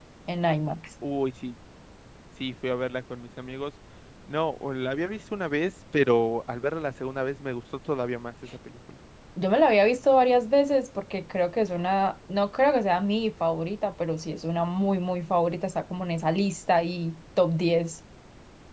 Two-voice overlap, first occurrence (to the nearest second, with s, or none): none